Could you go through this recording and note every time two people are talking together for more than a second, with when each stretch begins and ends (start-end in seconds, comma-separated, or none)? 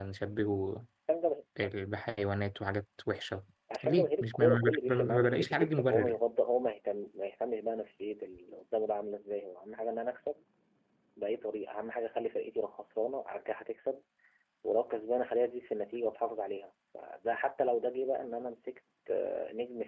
3.8-6.2